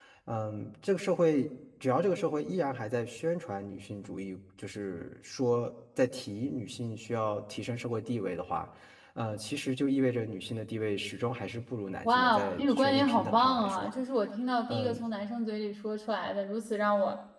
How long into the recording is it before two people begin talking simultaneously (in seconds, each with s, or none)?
12.1 s